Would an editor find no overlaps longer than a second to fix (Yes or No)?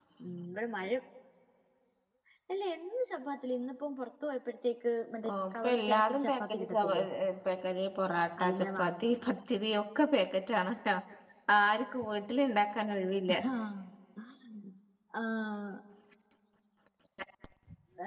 No